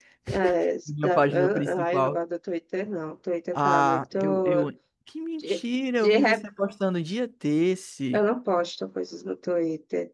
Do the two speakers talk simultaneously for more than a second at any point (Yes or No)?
Yes